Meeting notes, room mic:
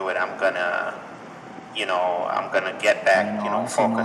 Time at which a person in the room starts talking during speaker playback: 3 s

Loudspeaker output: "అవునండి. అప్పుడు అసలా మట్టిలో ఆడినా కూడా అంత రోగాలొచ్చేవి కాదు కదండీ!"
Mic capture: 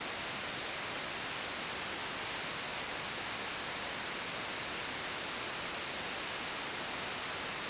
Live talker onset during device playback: none

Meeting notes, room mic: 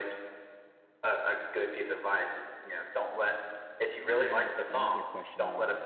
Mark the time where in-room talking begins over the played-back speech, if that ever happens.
4 s

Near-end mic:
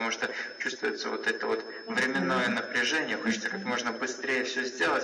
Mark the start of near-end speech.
2 s

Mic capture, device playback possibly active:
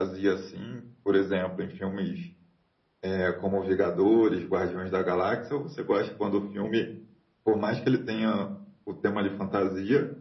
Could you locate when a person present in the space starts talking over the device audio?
none

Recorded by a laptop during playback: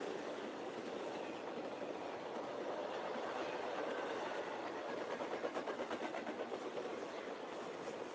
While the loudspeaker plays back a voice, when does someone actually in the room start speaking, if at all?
none

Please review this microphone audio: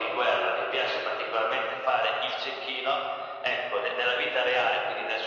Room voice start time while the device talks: none

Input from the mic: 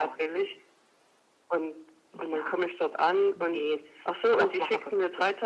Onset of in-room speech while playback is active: none

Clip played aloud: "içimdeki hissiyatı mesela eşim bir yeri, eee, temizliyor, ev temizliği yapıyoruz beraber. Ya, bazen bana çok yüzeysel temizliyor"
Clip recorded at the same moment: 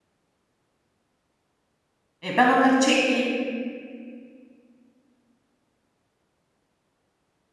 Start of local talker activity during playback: 2 s

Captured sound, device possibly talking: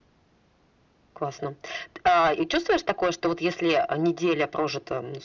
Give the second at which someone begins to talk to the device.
none

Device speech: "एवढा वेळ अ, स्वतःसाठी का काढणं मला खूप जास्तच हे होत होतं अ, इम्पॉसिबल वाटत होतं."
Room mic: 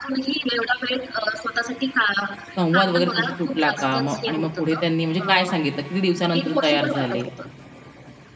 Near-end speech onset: 3 s

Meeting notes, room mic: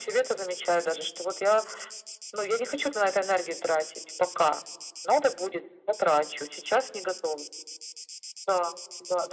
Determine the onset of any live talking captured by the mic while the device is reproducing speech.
none

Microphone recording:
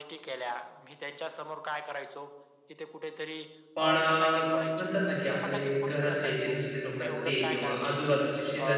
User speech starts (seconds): 4 s

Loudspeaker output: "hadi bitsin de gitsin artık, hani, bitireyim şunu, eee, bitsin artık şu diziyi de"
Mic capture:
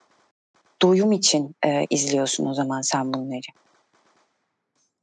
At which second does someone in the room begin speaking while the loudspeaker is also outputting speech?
1 s

